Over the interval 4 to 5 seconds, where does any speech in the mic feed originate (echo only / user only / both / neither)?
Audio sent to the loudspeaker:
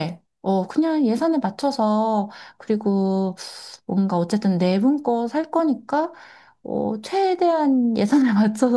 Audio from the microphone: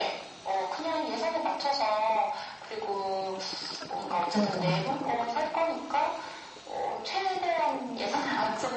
both